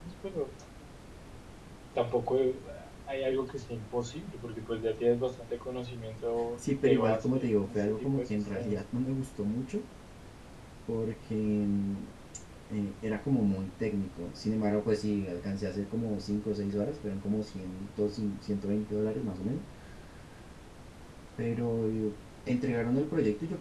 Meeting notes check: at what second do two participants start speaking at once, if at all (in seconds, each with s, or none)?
6.6 s